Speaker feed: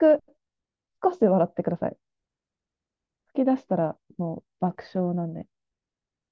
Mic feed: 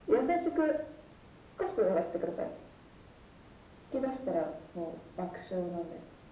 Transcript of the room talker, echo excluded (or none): none